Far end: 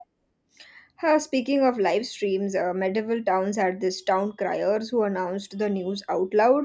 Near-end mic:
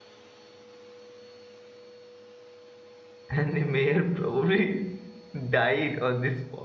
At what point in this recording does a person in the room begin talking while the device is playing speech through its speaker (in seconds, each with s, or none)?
3.3 s